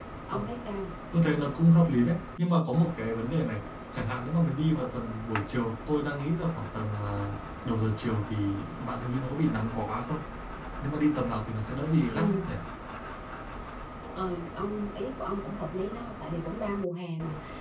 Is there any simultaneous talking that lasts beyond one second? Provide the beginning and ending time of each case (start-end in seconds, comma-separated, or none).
none